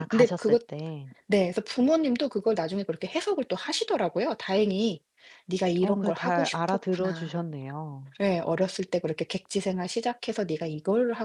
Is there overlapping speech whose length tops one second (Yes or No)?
Yes